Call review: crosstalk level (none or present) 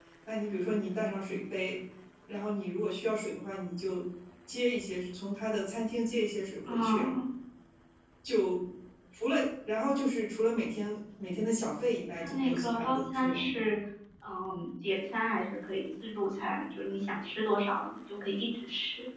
present